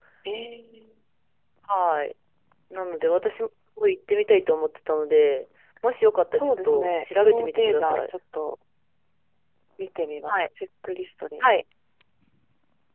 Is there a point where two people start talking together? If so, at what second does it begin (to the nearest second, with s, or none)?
6 s